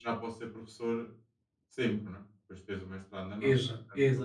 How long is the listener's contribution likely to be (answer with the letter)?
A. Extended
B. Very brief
A